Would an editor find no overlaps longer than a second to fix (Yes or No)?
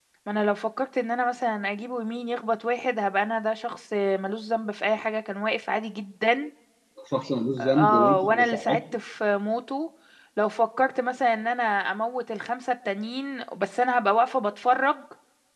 No